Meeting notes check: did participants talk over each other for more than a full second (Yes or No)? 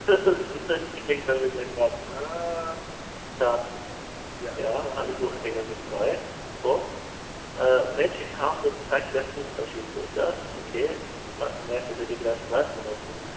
Yes